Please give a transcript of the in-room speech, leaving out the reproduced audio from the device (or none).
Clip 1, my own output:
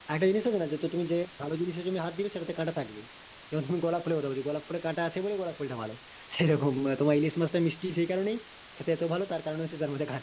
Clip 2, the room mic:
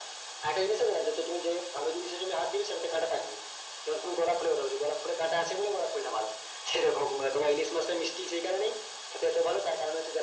none